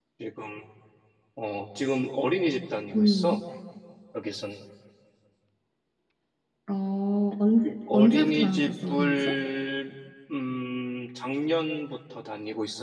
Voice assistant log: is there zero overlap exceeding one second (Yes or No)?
No